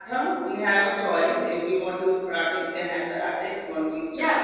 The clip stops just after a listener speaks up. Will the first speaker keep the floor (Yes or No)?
No